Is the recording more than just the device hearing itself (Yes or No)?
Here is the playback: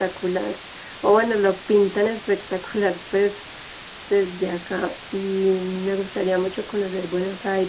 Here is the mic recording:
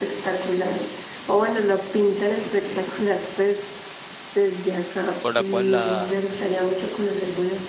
Yes